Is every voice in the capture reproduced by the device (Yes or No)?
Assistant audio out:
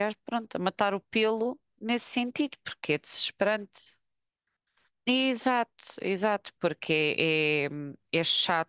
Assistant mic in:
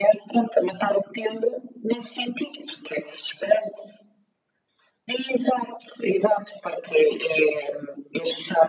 Yes